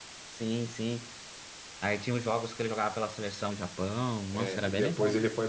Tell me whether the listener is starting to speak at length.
Yes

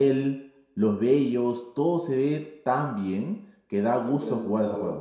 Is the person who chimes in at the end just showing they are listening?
No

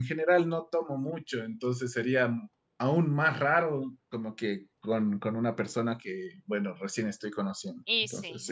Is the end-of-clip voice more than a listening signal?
Yes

